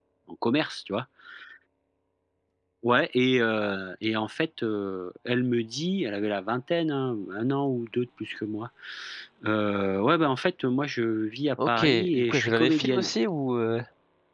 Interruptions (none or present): present